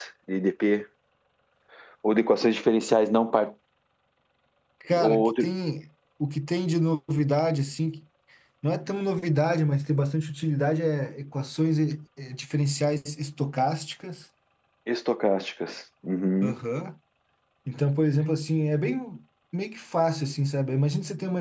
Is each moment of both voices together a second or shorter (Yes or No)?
Yes